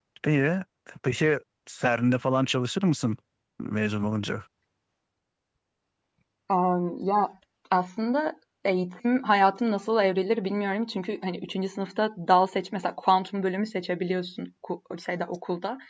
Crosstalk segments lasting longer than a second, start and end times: none

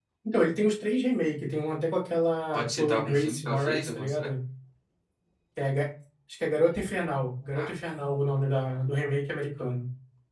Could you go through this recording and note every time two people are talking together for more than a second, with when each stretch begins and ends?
2.5-4.3

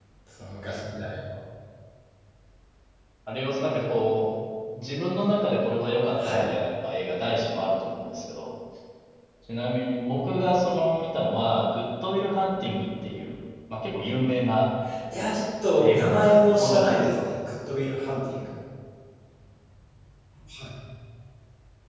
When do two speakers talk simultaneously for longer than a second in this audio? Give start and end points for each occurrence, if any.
15.8-17.2

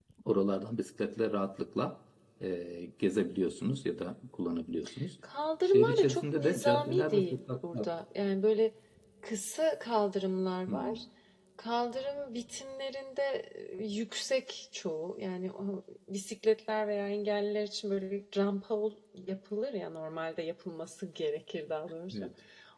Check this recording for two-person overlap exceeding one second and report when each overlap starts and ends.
5.6-7.9

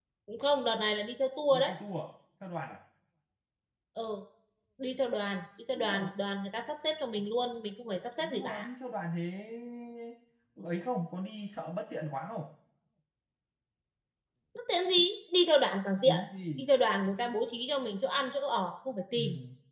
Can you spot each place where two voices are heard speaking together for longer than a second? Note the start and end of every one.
none

